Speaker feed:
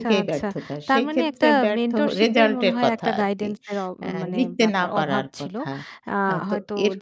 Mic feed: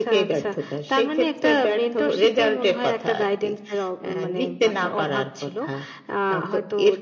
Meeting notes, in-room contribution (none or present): none